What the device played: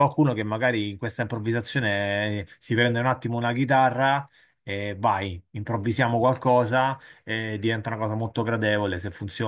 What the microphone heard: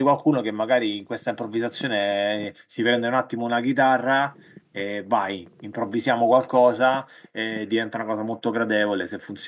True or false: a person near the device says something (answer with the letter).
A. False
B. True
A